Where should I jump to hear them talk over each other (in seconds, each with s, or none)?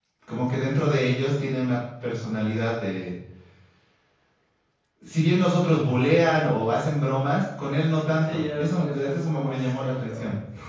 8.2 s